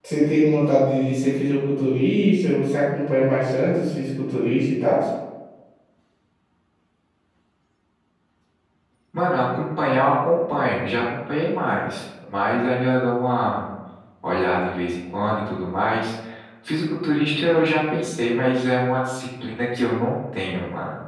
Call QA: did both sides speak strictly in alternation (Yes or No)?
Yes